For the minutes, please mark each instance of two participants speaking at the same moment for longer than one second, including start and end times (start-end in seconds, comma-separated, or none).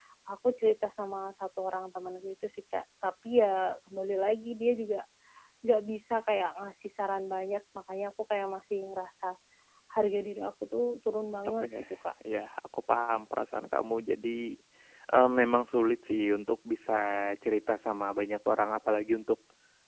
none